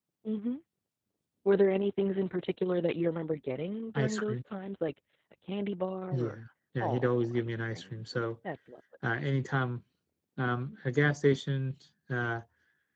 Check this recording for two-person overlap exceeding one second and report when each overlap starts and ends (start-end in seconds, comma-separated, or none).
6.8-8.0